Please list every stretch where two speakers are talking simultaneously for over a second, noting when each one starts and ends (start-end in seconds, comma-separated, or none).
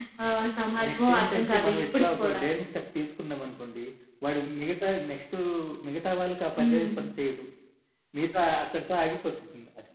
0.9-2.4